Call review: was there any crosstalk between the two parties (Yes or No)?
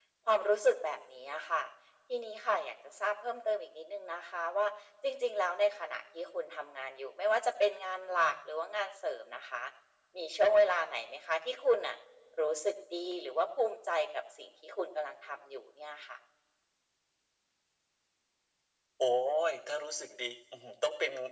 No